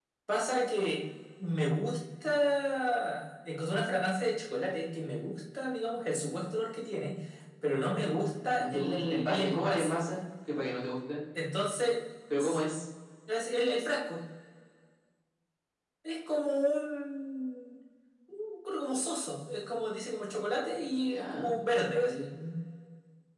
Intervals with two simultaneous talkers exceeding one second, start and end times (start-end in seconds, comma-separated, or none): 8.5-10.0